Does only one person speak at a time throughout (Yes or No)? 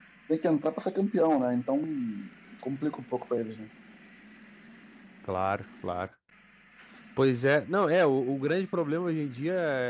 Yes